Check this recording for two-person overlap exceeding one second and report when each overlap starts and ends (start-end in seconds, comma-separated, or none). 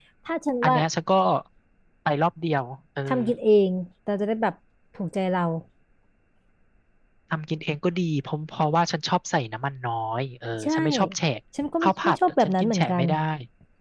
11.8-13.1